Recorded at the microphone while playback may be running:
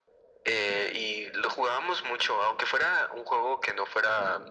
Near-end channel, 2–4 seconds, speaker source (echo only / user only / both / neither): echo only